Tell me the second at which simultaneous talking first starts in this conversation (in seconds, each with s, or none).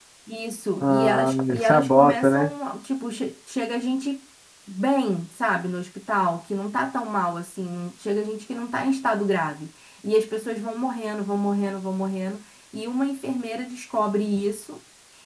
0.8 s